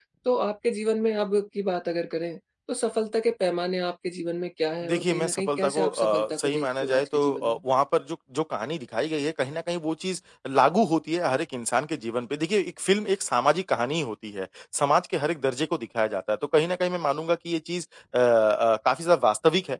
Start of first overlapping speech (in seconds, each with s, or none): 4.8 s